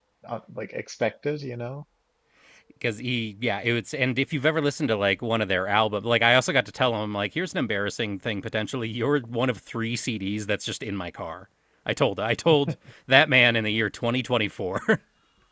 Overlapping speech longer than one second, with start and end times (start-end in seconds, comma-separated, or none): none